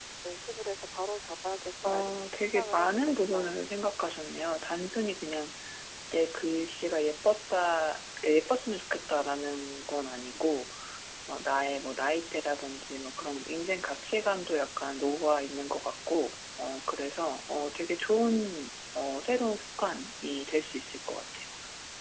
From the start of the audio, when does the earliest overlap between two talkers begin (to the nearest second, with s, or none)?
2 s